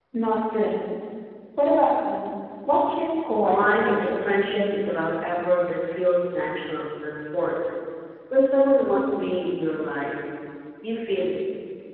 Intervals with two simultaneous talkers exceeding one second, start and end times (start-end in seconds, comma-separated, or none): 3.4-4.7